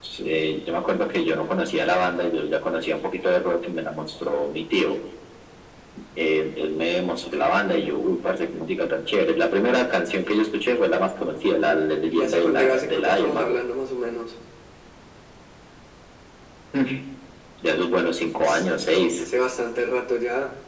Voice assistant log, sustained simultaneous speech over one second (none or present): present